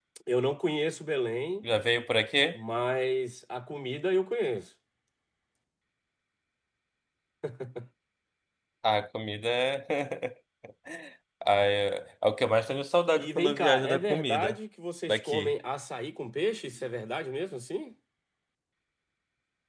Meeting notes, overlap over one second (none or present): present